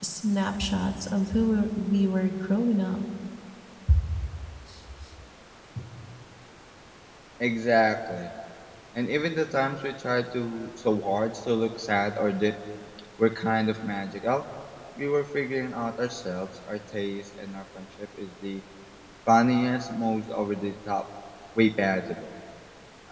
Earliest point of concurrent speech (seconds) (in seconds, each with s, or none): none